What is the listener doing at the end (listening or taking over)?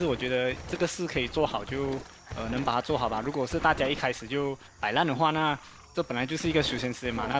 listening